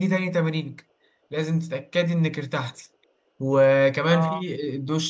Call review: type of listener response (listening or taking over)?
listening